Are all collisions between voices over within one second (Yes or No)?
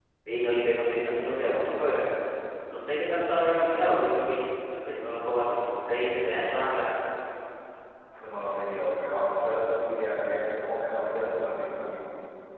Yes